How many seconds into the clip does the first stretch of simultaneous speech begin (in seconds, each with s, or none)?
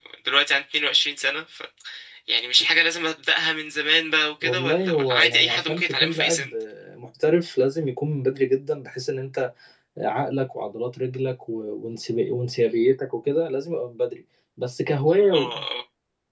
4.4 s